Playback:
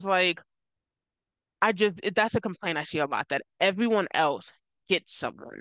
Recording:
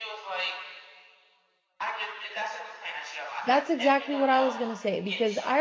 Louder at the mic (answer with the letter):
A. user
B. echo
A